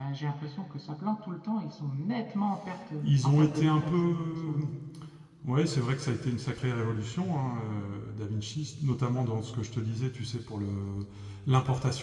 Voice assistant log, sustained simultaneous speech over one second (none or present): present